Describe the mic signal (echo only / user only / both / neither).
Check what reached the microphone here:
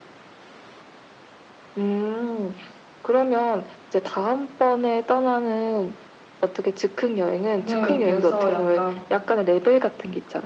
both